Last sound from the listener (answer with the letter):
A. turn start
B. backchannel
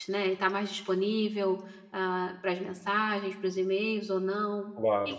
A